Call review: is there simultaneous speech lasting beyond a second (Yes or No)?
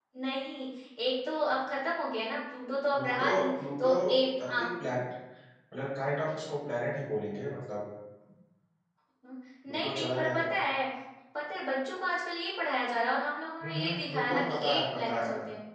Yes